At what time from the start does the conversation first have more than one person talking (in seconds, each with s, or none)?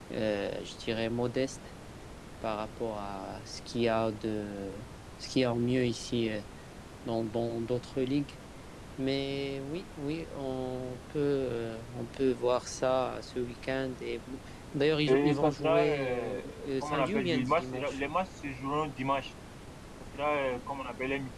15.1 s